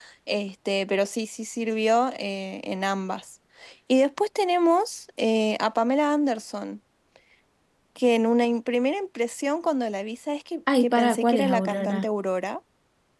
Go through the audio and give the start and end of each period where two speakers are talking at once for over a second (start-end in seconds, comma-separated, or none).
10.8-12.1